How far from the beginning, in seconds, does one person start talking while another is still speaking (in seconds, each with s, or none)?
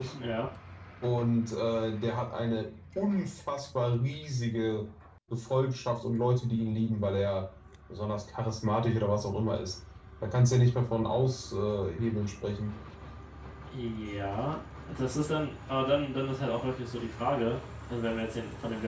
none